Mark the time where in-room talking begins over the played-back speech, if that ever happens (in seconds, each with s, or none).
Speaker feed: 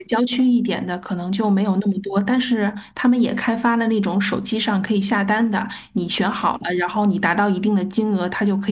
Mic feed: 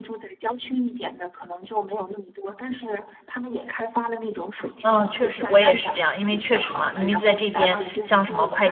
4.8 s